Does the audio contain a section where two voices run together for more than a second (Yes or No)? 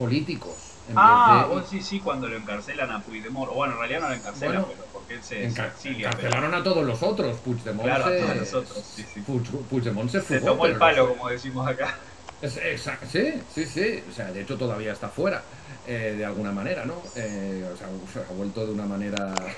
Yes